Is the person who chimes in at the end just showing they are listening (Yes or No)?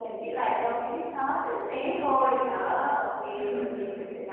Yes